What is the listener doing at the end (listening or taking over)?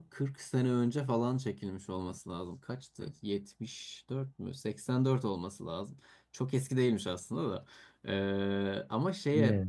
listening